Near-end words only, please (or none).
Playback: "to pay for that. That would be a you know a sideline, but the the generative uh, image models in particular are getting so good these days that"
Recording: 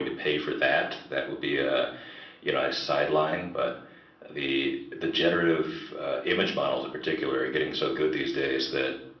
none